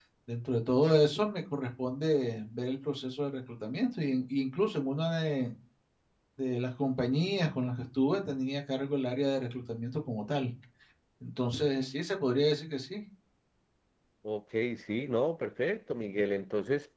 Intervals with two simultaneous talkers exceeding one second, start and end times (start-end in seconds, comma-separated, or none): none